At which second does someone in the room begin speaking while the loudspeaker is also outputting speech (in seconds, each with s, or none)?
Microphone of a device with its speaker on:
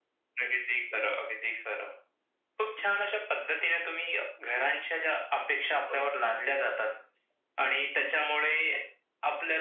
none